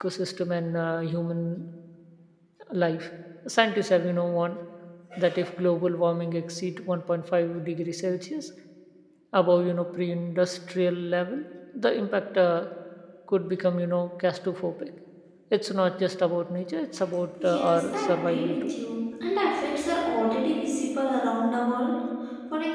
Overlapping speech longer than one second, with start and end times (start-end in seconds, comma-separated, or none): 17.4-18.7